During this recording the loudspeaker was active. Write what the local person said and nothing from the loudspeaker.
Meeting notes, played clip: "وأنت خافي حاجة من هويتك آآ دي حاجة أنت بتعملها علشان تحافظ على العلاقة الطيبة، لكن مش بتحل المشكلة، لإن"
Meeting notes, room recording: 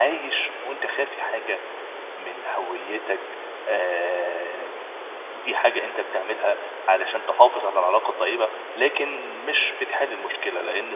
none

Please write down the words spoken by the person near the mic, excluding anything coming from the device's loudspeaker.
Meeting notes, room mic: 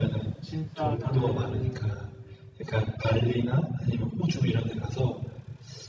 진짜 그

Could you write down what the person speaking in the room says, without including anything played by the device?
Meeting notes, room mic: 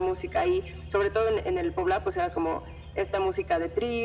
none

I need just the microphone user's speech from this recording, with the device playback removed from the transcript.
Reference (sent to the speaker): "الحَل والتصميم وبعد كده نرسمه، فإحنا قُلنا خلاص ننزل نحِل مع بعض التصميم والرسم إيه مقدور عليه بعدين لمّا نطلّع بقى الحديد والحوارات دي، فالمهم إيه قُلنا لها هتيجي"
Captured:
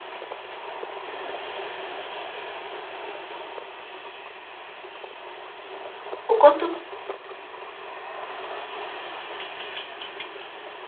وكنتوا

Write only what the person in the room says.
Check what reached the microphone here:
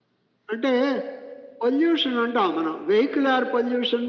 none

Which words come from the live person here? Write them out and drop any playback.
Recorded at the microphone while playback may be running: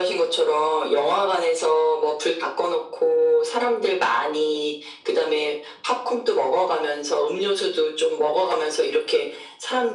none

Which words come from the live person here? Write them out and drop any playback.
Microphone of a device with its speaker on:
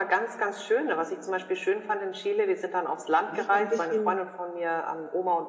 manchmal ein bisschen

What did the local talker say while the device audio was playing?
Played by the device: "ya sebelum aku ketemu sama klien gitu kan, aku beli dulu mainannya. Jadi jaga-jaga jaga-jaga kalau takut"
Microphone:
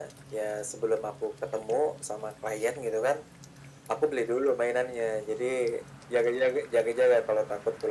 none

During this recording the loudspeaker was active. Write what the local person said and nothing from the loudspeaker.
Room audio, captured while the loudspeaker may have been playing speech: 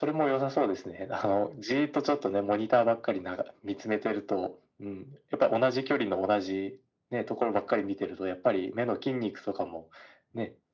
none

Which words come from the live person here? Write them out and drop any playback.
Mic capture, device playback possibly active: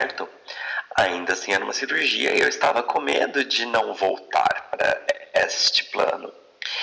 none

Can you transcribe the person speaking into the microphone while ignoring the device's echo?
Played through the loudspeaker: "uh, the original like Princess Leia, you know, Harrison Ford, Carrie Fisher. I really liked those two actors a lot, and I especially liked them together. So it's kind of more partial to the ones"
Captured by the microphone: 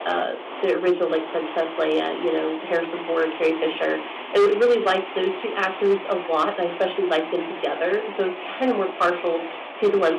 none

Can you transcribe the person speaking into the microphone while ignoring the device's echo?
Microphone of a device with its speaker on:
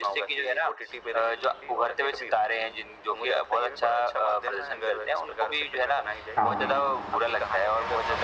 हाँ, हाँ।

